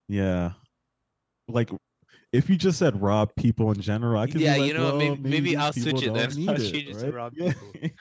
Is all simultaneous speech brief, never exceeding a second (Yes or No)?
No